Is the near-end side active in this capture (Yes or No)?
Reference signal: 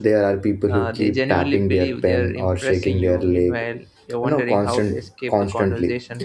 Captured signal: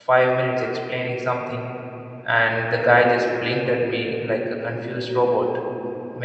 Yes